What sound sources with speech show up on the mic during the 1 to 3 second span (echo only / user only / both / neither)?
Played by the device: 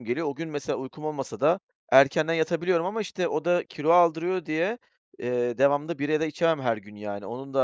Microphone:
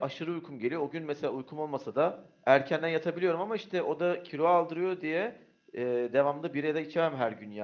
echo only